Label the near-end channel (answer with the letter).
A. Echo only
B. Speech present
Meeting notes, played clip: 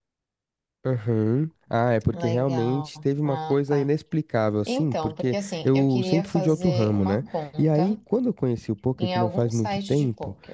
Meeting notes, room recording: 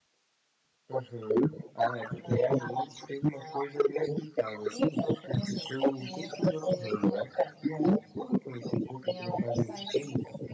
A